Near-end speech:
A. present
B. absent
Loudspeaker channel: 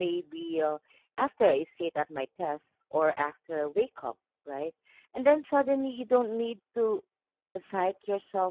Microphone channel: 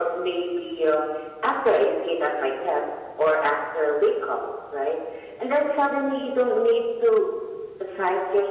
B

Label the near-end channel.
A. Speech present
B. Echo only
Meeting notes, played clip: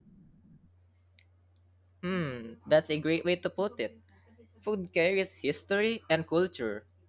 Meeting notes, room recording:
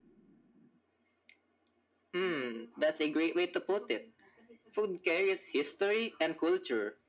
B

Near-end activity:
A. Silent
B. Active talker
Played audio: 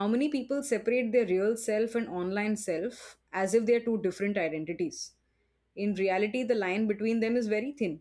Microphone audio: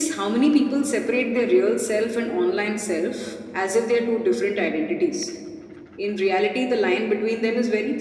A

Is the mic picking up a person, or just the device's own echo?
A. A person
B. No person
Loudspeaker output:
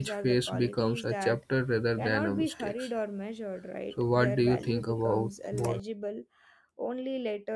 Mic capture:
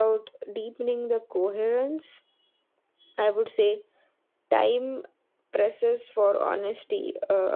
A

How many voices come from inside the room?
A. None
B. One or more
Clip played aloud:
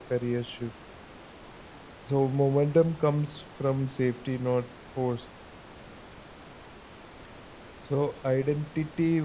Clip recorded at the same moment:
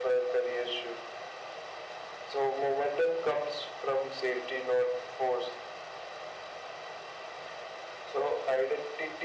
A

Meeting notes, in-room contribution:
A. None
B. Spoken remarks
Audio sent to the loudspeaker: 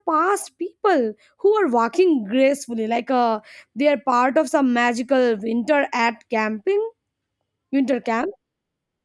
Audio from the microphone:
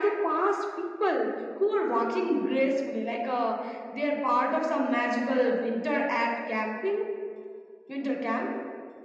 A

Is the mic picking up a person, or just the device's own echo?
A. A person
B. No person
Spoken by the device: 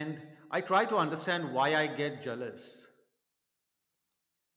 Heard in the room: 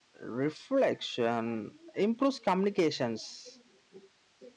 A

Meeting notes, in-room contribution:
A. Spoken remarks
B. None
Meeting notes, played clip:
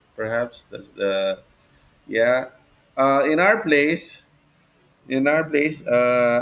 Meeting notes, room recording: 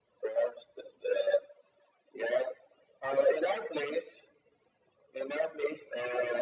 B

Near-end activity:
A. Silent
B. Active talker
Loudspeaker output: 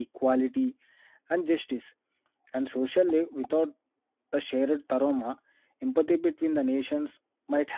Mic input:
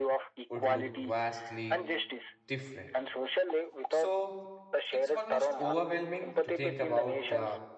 B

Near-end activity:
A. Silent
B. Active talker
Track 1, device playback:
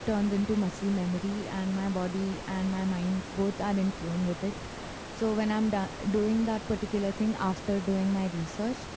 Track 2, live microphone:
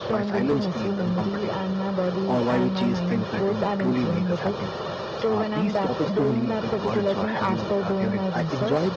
B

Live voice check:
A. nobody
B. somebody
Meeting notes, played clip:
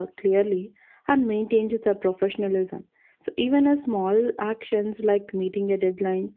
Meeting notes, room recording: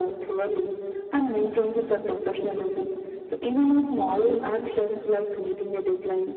A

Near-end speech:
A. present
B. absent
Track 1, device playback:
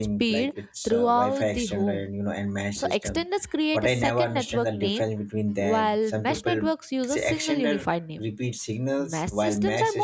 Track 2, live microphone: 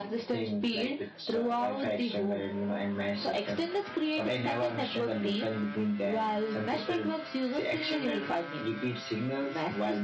B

